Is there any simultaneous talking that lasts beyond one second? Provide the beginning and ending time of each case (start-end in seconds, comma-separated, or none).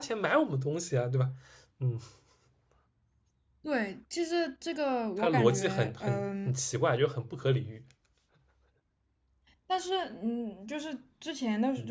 5.2-6.5